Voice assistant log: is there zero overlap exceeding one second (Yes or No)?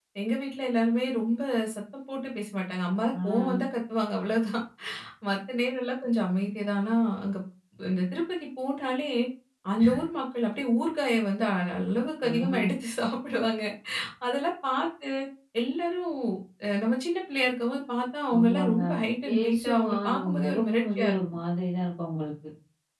No